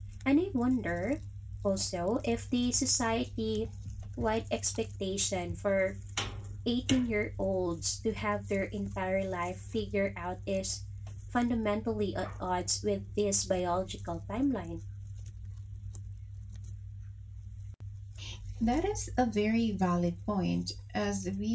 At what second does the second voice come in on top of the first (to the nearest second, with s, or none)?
none